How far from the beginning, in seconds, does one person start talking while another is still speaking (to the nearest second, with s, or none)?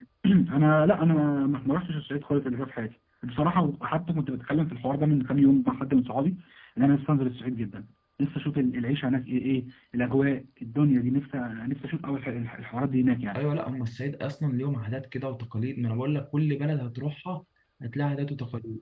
none